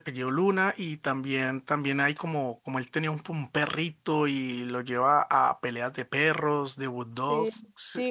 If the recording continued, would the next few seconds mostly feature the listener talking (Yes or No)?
Yes